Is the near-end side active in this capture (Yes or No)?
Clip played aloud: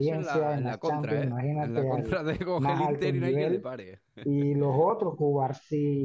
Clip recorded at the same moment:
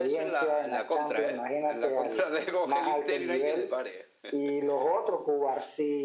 No